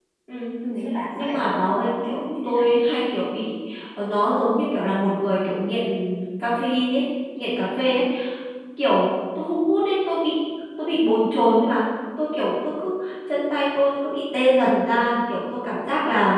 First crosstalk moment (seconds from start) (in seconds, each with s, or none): 1.2 s